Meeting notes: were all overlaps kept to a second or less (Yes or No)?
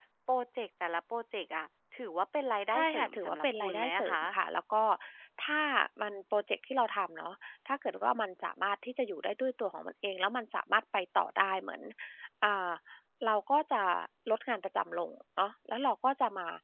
No